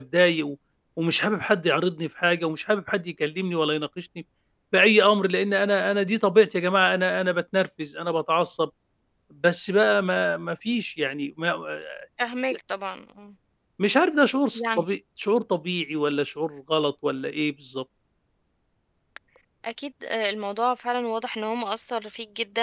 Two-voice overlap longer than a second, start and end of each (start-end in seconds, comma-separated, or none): none